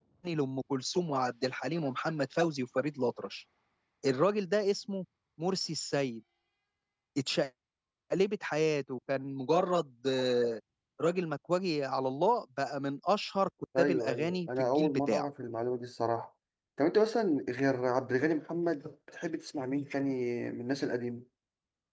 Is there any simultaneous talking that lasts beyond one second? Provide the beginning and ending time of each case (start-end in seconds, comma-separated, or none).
13.8-15.3